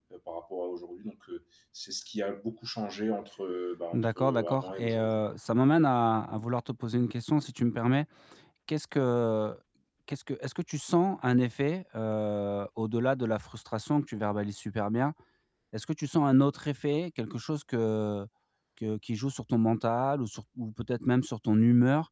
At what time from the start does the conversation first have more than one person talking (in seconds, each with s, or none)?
3.9 s